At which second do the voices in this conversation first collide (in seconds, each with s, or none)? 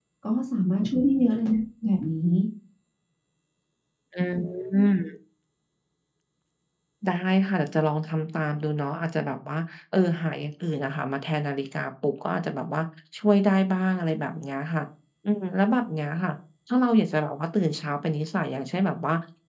none